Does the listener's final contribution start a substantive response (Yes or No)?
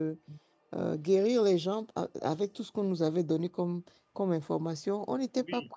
Yes